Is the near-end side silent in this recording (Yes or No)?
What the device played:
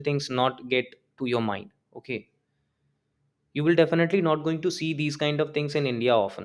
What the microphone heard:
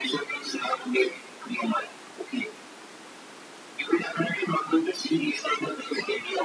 Yes